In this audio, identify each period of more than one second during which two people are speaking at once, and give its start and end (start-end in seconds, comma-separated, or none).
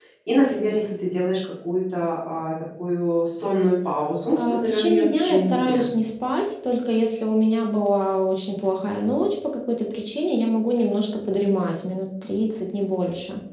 4.3-5.9